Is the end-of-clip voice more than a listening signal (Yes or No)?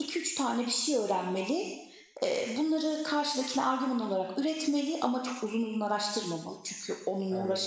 Yes